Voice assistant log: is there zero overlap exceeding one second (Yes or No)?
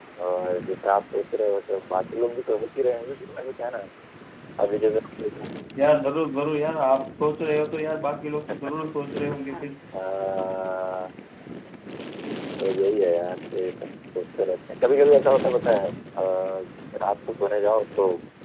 Yes